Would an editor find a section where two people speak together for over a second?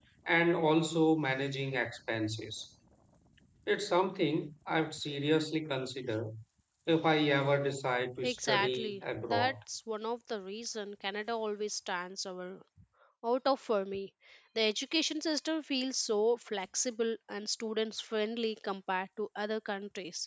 Yes, from 8.2 s

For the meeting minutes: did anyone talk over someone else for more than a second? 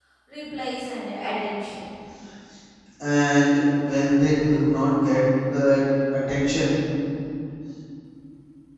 No

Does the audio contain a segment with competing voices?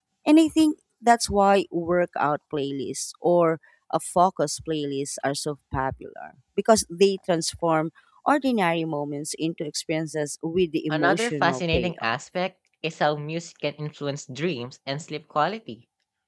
Yes, from 10.9 s

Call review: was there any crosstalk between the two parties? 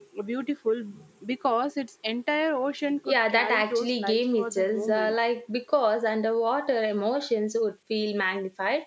Yes, from 3.0 s

